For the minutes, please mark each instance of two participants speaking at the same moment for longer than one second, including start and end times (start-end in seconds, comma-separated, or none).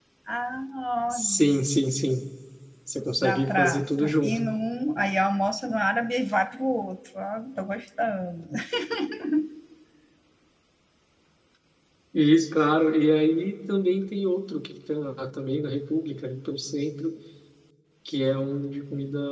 3.2-4.4